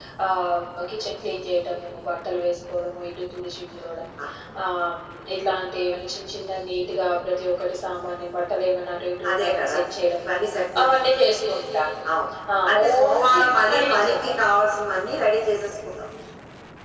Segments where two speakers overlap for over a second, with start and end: 12.7-14.1

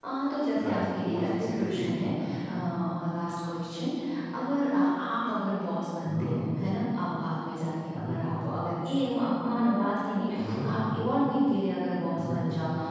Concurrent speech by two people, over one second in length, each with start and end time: 0.6-2.4

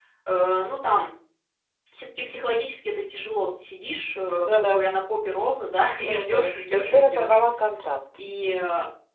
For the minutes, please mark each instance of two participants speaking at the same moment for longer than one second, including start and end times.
6.0-7.4

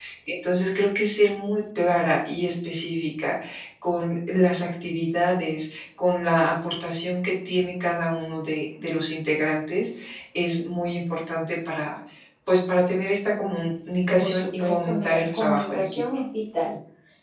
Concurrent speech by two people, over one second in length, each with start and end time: 14.2-16.0

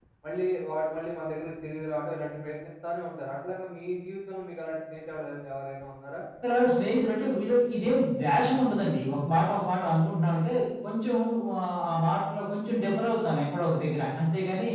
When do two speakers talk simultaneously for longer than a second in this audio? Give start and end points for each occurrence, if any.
none

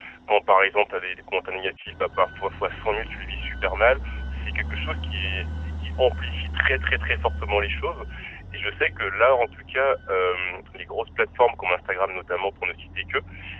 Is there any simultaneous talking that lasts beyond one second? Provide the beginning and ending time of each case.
none

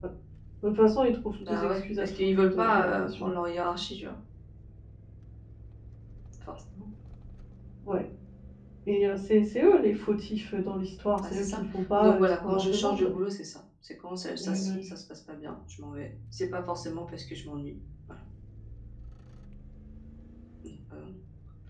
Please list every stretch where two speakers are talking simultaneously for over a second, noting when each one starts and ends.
1.5-3.3, 11.3-13.2

